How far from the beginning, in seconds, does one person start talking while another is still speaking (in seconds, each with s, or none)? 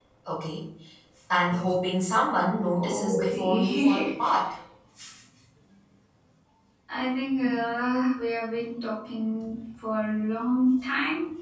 2.8 s